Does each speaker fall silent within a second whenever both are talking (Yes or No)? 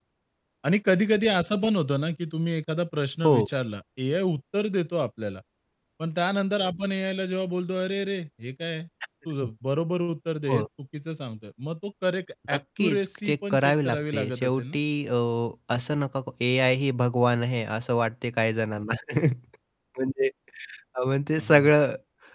No